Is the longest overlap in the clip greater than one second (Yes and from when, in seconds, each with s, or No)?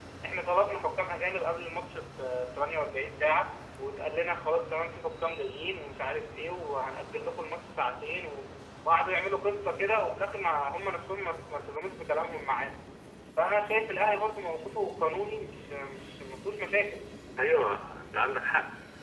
No